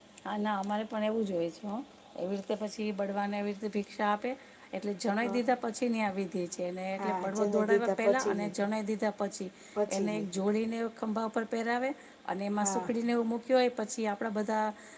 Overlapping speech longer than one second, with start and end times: 7.0-8.5

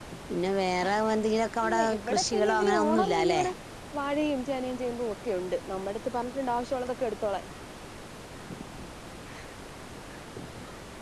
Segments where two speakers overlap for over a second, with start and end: 1.7-3.4

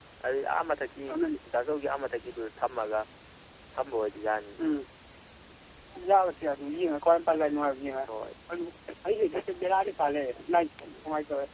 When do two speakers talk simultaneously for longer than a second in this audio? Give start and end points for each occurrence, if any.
none

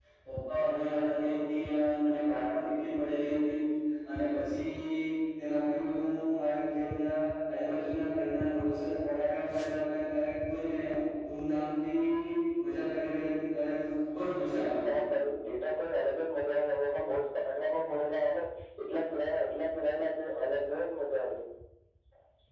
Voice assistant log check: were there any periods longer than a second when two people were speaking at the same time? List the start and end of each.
none

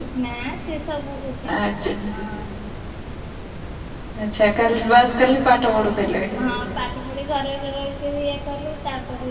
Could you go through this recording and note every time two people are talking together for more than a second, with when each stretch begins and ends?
none

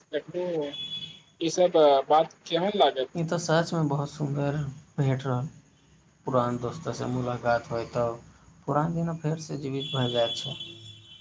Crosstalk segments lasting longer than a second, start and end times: none

